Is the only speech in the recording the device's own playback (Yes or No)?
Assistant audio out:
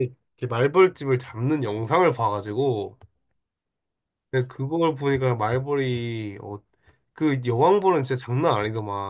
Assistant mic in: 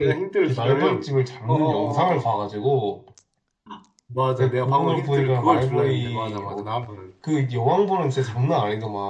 No